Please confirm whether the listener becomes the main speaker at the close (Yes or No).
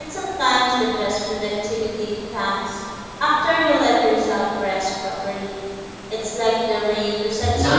Yes